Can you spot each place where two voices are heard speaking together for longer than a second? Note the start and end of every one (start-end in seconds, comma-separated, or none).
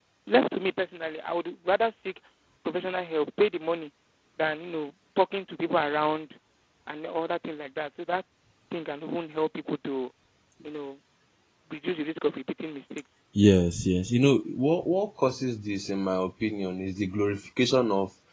none